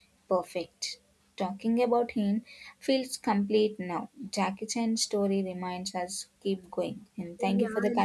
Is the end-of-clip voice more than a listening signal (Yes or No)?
Yes